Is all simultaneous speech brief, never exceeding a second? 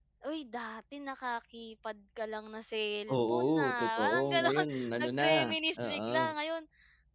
No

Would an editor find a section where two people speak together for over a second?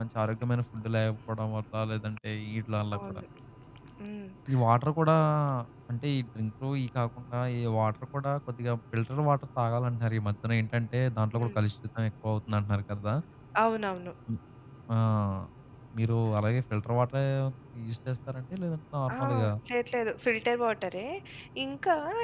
No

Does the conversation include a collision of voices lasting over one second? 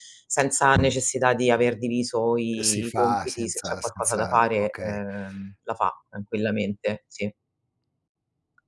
Yes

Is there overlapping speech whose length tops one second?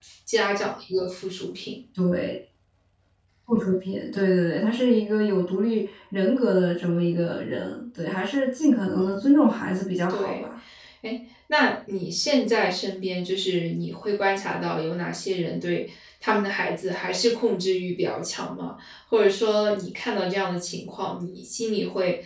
No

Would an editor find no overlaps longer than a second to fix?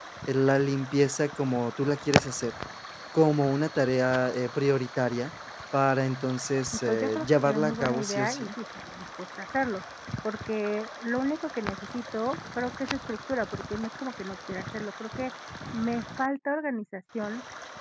No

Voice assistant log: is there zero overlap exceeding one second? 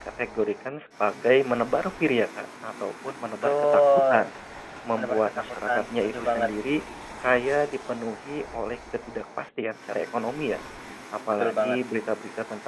No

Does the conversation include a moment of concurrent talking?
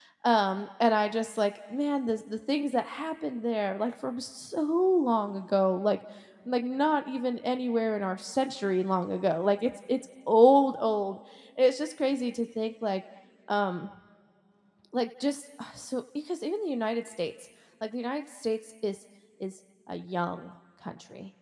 No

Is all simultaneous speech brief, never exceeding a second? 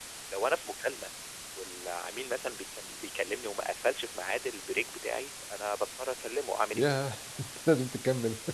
Yes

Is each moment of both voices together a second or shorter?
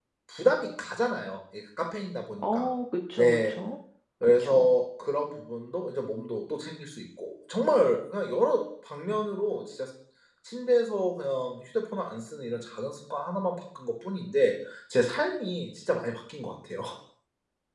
Yes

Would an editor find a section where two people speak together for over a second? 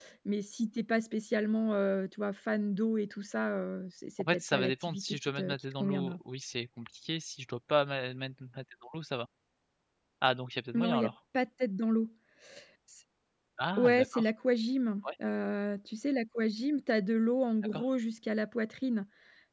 Yes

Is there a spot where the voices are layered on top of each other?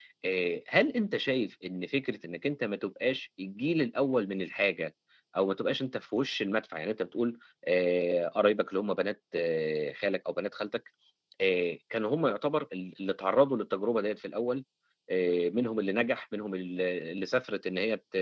No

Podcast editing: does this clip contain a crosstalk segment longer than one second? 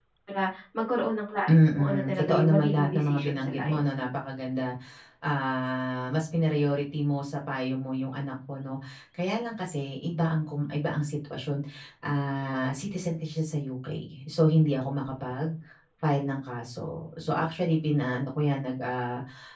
Yes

